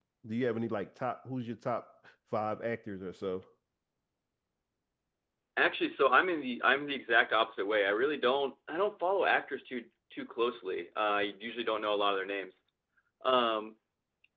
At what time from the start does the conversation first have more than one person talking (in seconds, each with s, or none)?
none